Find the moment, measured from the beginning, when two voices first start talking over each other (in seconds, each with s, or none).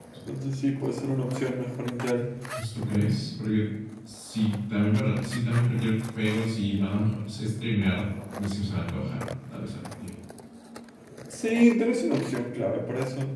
none